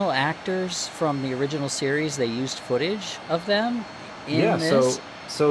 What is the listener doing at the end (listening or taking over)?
taking over